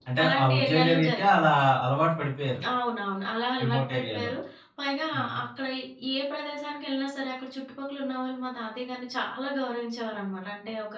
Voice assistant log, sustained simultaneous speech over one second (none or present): present